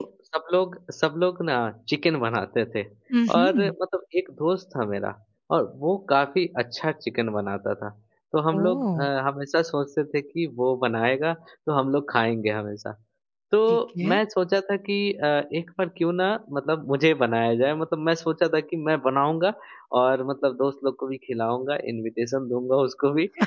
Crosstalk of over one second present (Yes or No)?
No